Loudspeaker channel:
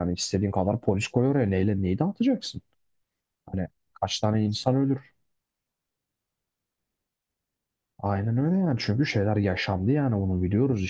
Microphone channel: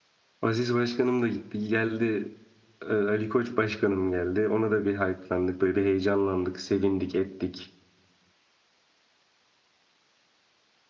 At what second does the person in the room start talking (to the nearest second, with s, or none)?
0 s